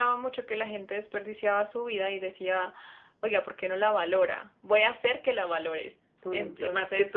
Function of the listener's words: taking over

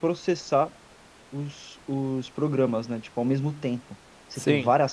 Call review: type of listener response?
listening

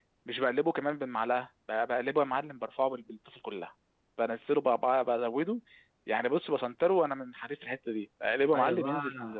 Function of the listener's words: taking over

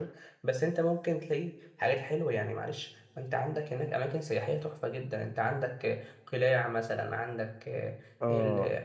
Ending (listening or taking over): listening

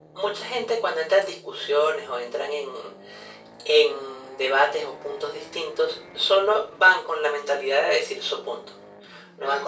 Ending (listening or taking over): listening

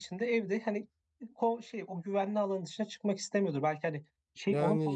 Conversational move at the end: taking over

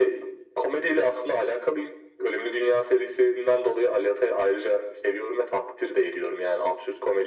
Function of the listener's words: listening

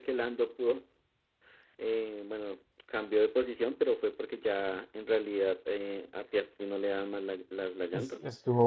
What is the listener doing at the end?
taking over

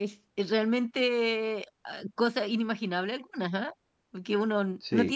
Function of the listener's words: listening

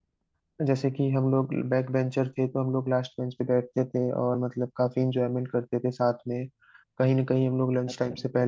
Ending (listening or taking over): listening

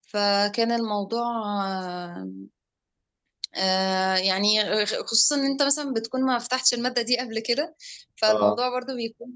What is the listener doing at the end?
listening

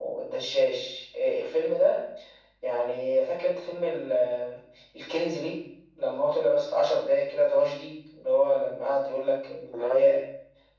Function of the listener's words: listening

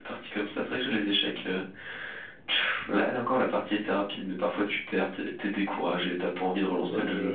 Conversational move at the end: taking over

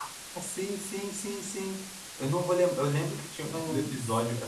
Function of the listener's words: listening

